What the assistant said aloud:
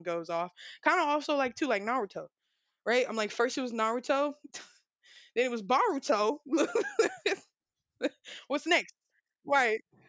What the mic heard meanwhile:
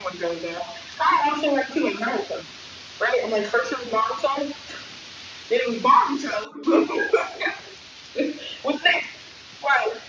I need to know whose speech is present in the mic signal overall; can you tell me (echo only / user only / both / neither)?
echo only